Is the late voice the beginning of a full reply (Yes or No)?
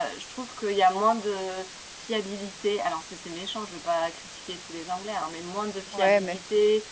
No